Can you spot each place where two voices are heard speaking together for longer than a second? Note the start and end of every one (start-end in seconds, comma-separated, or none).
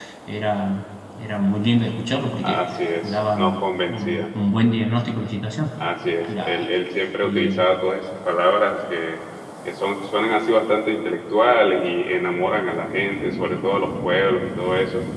3.0-4.2